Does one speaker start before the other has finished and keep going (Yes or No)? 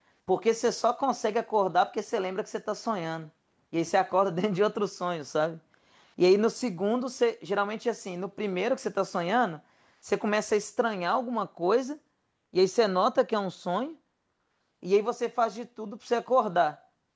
No